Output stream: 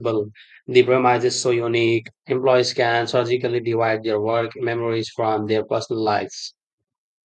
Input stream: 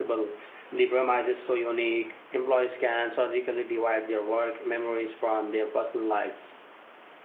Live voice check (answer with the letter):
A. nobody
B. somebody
A